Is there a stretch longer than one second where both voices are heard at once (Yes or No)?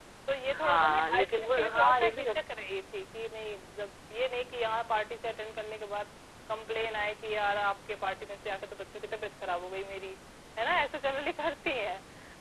Yes